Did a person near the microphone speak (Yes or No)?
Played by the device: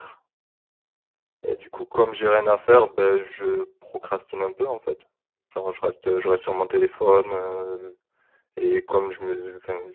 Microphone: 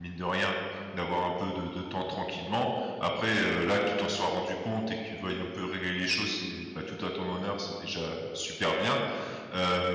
Yes